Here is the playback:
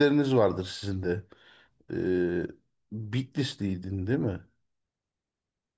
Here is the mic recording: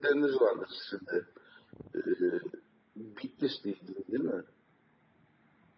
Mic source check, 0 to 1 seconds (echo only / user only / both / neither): echo only